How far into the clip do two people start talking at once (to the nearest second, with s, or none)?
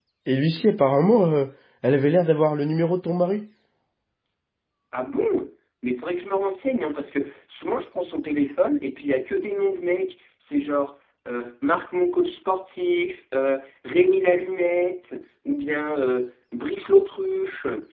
none